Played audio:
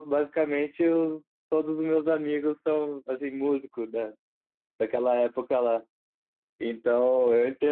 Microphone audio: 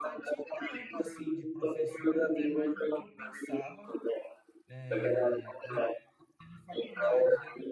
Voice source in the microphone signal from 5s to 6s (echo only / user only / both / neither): both